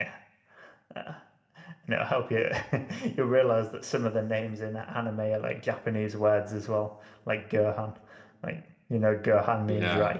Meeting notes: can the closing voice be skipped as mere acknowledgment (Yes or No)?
No